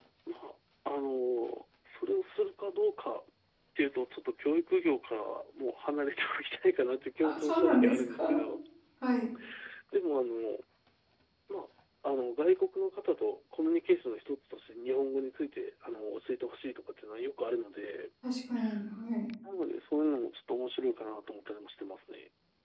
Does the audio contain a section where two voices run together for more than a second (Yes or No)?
Yes